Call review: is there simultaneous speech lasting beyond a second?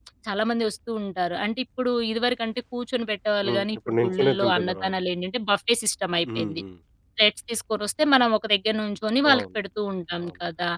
Yes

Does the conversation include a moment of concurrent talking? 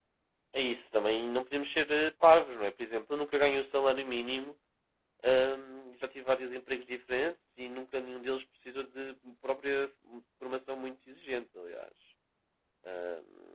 No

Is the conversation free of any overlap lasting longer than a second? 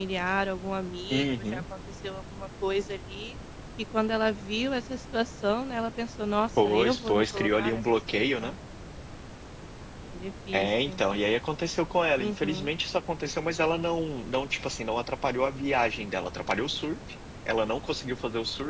No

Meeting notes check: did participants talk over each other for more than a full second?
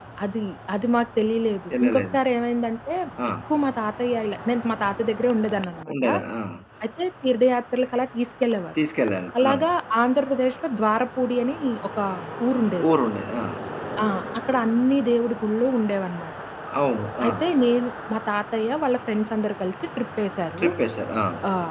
No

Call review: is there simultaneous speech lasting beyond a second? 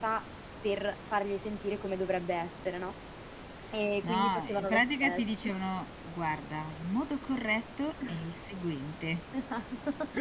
Yes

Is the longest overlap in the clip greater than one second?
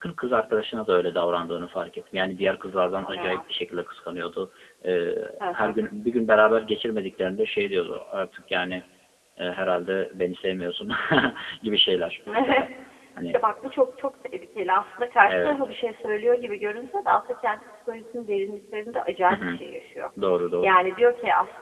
No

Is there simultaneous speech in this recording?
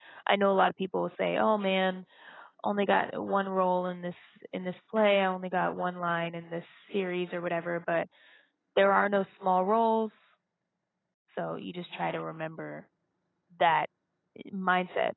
No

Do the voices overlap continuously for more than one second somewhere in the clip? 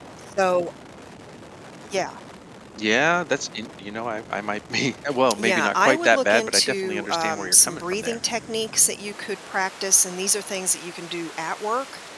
Yes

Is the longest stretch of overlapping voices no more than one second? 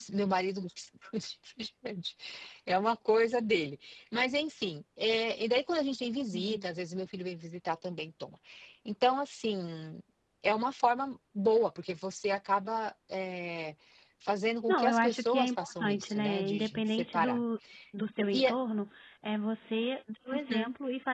No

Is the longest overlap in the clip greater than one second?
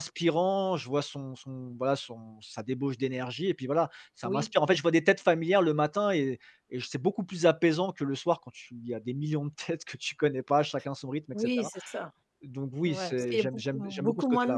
Yes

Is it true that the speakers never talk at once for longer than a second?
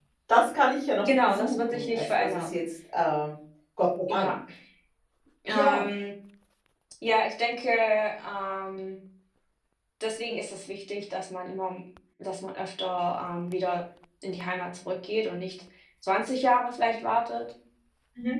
No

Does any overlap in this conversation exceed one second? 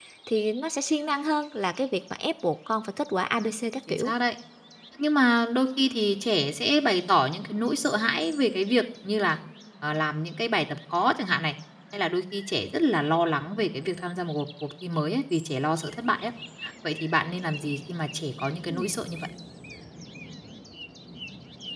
No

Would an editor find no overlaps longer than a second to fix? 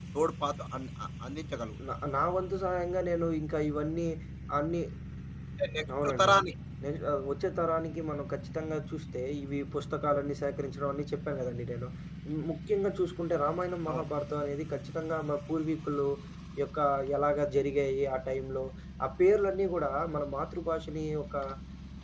Yes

